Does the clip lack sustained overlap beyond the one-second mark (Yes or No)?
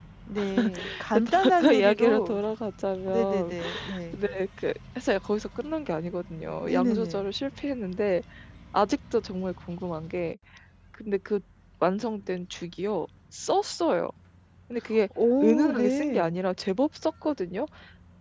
No